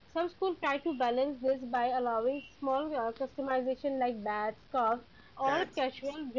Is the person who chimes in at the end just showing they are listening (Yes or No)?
Yes